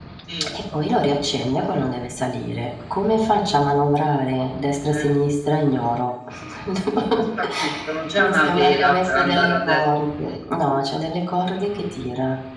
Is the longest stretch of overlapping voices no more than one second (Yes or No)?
No